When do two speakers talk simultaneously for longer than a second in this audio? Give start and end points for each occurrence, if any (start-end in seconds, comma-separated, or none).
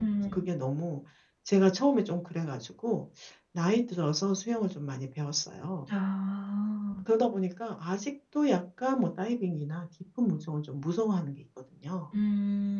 none